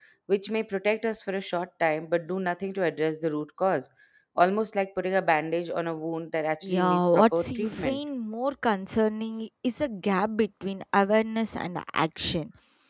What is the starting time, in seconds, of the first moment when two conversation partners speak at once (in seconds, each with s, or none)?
6.6 s